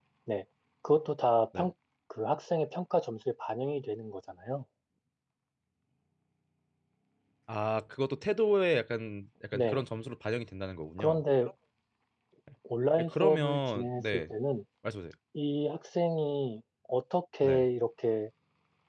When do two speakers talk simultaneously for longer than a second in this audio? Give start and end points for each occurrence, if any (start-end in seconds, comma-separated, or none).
13.0-14.3